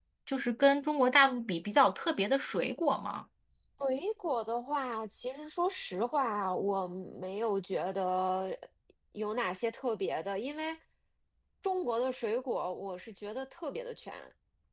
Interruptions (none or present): none